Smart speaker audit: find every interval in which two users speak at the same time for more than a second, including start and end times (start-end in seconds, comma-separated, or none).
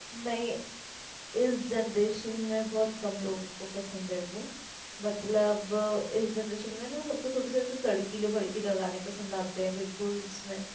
none